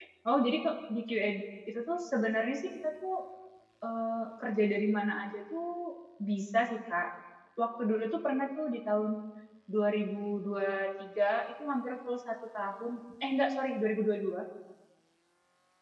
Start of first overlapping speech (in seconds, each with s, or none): none